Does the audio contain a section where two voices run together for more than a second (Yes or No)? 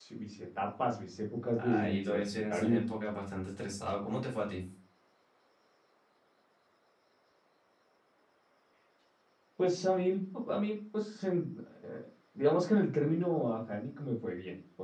Yes